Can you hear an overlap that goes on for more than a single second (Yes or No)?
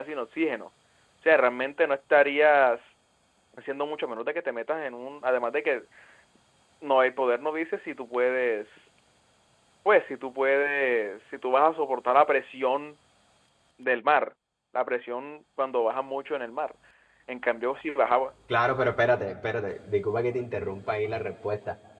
No